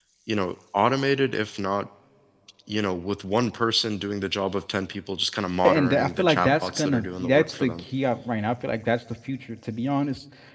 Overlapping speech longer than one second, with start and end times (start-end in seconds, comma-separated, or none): 5.6-7.8